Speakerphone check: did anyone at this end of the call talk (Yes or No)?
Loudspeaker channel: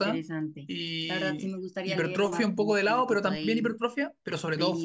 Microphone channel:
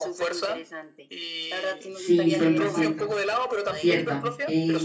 Yes